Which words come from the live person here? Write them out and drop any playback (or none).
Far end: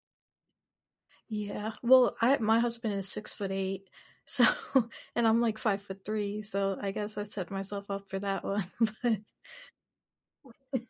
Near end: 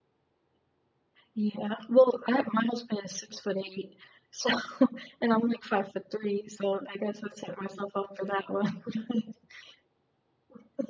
none